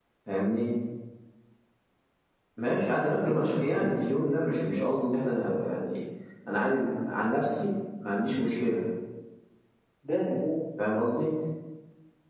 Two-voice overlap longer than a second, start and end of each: 3.2-5.3

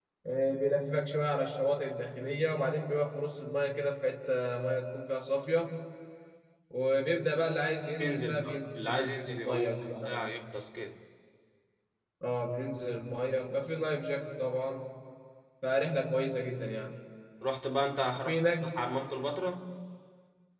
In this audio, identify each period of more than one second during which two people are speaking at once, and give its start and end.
8.0-10.3

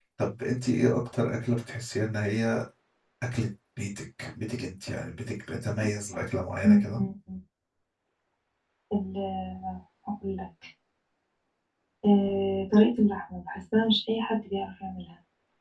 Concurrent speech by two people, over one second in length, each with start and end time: none

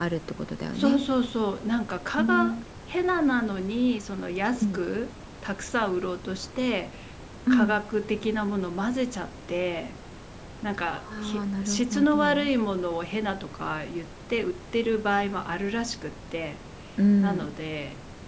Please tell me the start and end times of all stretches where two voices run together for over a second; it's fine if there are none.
11.2-12.4

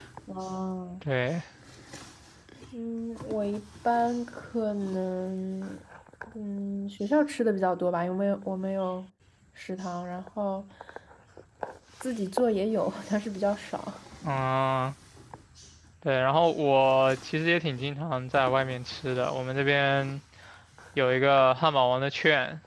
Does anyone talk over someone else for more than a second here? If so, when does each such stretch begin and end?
none

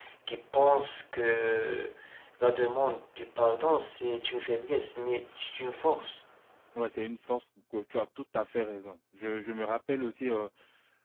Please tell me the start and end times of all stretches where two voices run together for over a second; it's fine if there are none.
none

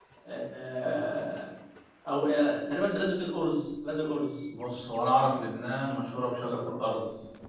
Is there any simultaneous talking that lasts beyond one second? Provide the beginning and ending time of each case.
none

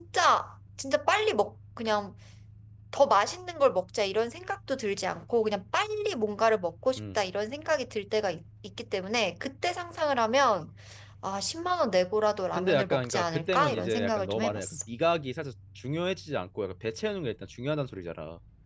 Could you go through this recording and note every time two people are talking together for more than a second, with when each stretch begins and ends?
12.5-14.8

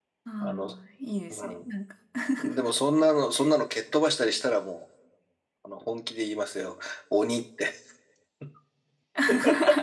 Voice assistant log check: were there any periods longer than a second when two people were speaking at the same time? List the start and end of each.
none

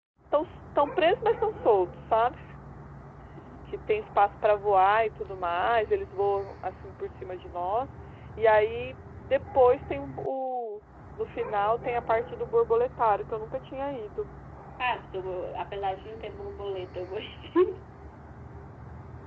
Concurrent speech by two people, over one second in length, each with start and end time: none

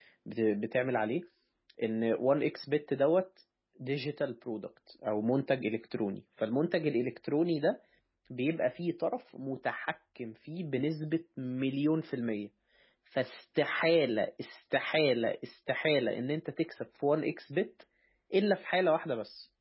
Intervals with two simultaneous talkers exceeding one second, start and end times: none

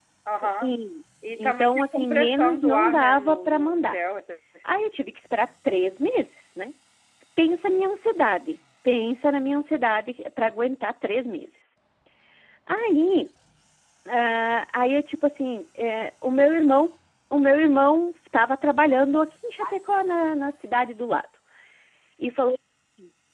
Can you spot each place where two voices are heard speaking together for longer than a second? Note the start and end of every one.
1.4-4.0

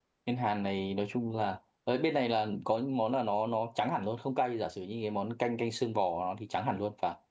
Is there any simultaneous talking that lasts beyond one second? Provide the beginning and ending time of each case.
none

